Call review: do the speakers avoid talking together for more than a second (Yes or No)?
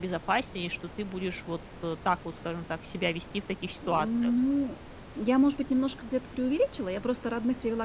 Yes